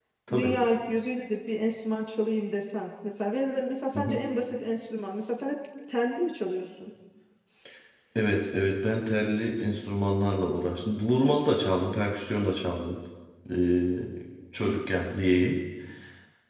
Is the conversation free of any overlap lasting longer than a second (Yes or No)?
Yes